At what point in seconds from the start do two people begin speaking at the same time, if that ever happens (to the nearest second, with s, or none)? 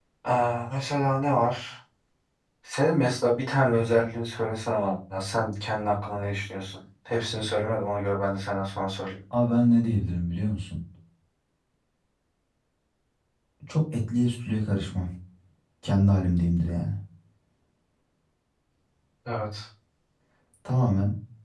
none